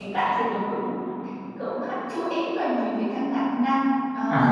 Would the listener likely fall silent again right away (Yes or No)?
Yes